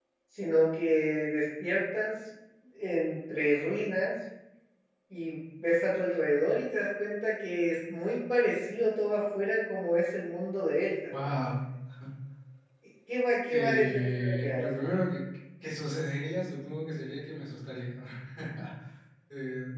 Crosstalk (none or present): present